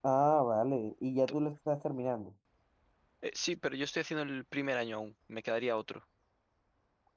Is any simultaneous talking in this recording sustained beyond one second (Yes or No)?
No